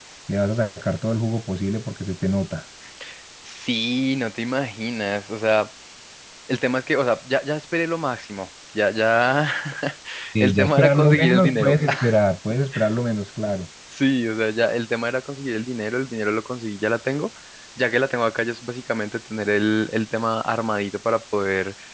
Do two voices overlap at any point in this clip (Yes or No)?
Yes